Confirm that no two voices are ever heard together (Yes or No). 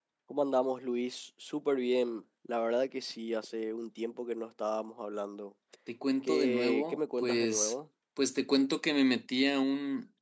No